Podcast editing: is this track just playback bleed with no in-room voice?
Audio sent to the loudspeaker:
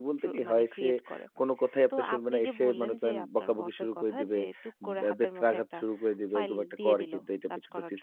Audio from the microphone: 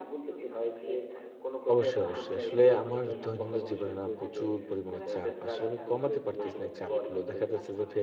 No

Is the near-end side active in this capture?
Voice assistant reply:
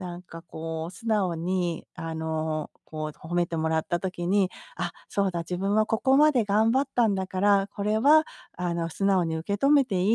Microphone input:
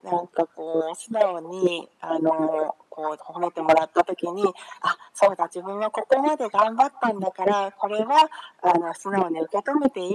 No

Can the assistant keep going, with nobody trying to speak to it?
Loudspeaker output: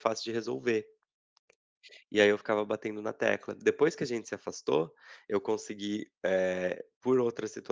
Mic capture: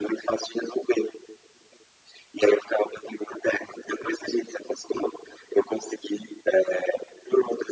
Yes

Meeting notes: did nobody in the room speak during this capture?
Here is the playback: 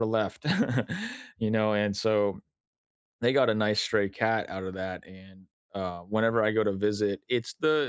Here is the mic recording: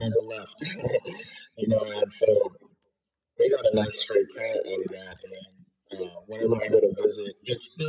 Yes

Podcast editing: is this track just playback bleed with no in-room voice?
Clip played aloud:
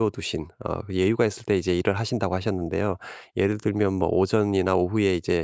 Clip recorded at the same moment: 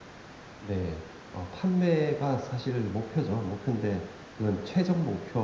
No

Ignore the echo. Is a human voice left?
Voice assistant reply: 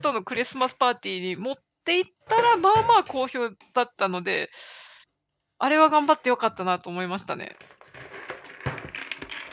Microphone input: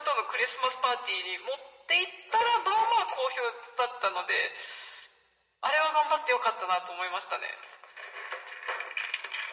No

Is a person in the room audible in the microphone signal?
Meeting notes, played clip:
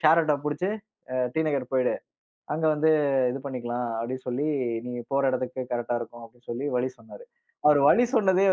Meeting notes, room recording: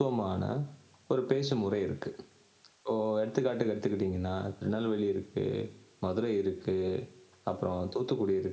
Yes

